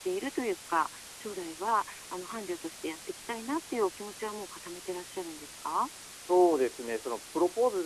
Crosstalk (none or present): none